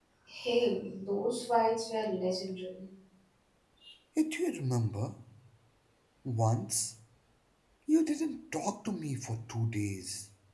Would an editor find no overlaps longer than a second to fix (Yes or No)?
Yes